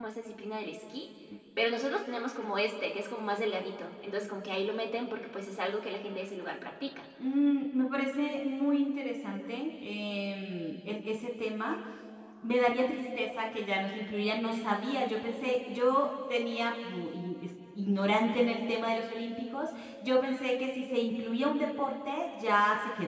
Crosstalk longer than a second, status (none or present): none